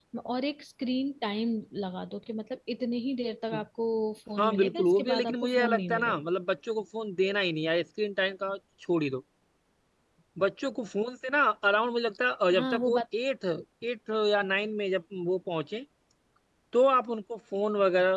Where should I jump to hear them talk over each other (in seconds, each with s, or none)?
4.4 s